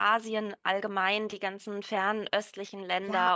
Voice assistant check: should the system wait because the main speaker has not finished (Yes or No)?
No